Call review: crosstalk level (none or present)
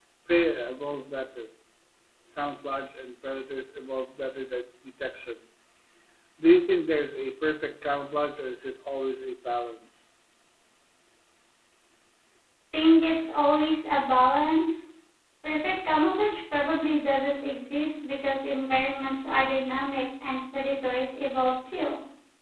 none